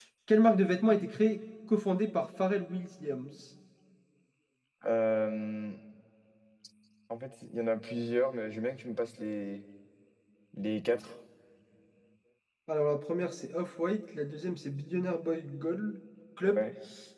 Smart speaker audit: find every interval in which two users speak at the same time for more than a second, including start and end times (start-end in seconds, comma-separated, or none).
none